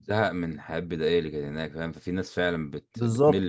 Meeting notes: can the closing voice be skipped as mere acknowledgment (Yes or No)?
No